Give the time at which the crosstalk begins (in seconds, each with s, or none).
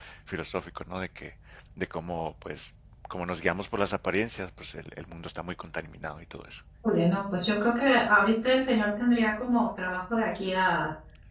none